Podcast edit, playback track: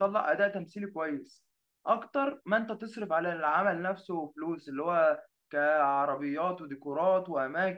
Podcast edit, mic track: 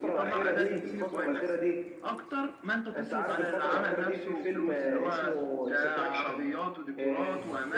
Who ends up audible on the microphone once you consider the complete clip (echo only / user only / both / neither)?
both